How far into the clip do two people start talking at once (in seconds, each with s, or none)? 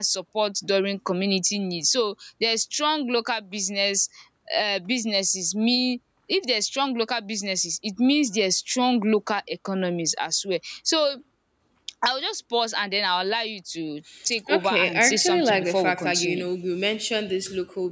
14.5 s